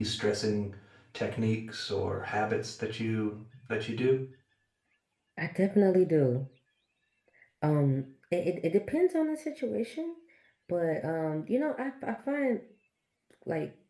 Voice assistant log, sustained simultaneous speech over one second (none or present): none